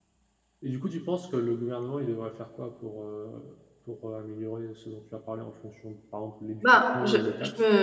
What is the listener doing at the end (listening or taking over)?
taking over